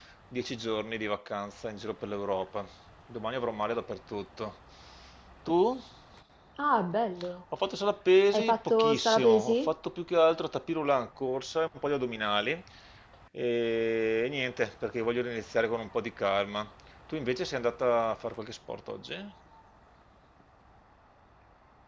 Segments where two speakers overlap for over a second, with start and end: 8.3-9.7

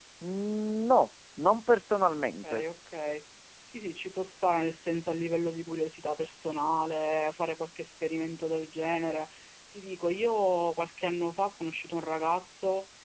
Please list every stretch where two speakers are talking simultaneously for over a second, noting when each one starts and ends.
none

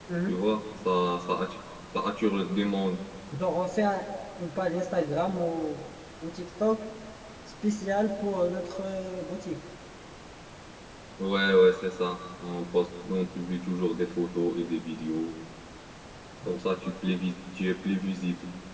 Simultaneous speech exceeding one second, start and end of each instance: none

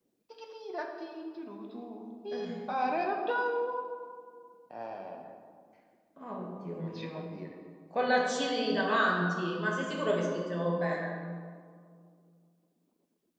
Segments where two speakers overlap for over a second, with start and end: none

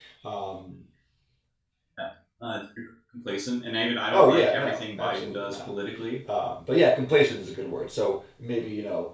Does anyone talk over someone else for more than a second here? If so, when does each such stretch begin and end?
4.1-5.7

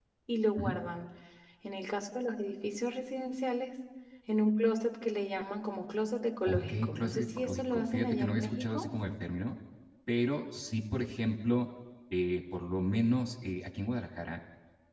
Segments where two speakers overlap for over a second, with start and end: 6.5-8.9

